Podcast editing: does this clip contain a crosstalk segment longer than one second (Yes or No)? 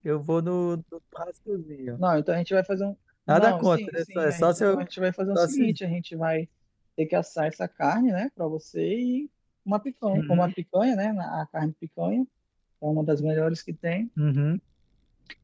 Yes